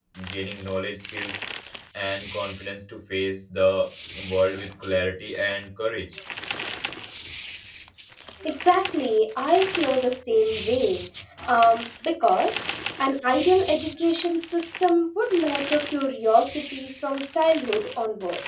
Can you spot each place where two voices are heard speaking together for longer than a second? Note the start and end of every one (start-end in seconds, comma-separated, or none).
none